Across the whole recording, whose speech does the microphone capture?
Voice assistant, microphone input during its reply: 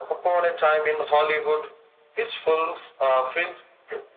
echo only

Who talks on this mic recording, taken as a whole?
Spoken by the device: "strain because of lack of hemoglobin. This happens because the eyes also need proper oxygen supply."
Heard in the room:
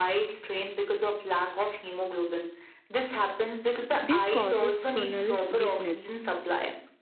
both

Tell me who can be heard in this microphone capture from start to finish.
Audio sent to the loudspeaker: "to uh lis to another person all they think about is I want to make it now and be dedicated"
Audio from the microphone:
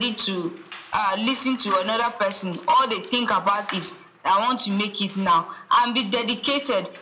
echo only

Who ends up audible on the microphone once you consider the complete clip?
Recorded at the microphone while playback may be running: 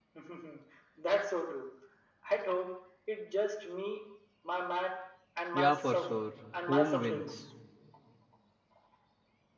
both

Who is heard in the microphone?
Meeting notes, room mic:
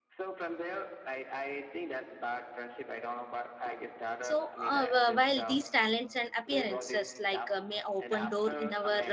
both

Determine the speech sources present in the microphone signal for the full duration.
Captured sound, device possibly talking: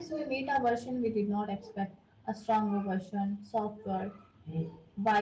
user only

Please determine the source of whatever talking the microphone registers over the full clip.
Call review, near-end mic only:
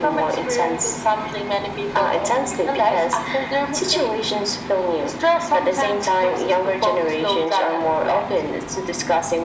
echo only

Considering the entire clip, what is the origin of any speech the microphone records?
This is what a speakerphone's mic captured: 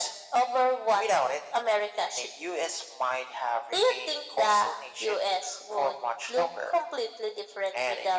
echo only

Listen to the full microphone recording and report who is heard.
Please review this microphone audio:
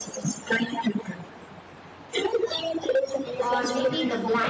both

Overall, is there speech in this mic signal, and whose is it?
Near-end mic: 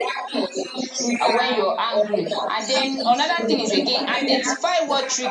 both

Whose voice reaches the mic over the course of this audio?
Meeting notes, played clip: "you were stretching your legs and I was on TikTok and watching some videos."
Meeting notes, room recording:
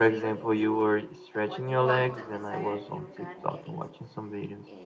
both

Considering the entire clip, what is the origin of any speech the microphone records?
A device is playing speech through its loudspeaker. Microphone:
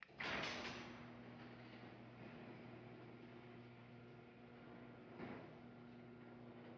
neither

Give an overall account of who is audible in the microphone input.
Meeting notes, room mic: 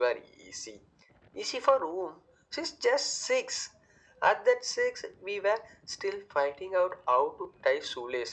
echo only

